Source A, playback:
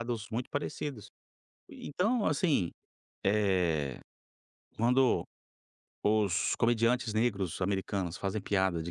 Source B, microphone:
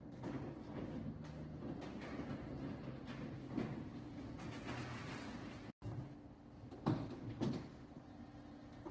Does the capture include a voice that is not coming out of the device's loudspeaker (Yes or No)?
No